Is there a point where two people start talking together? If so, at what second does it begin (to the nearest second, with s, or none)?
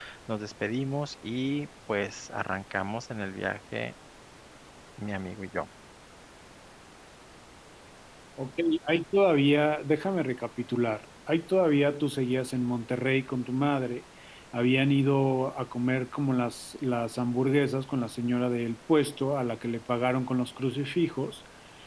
none